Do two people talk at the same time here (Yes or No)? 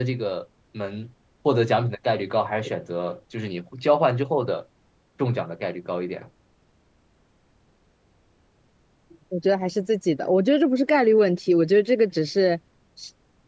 No